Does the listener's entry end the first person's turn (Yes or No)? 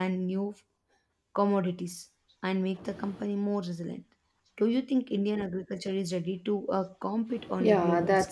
Yes